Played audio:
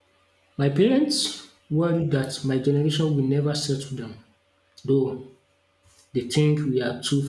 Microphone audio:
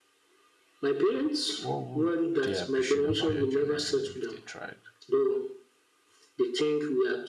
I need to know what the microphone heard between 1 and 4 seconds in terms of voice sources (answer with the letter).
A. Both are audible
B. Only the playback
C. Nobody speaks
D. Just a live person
A